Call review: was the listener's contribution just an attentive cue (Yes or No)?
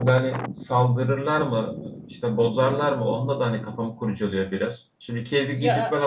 Yes